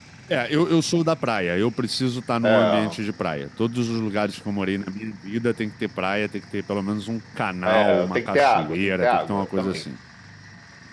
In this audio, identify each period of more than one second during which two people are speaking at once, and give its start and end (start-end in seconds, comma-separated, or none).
7.6-9.8